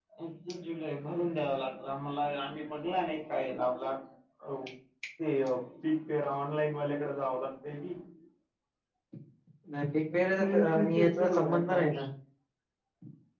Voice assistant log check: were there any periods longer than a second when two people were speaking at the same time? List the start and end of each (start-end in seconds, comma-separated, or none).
10.3-11.8